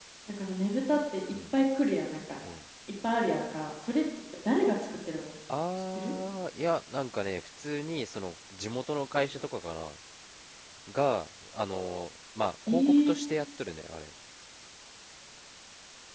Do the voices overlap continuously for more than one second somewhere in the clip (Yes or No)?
No